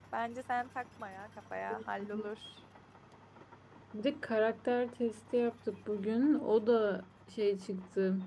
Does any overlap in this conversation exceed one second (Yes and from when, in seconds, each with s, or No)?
No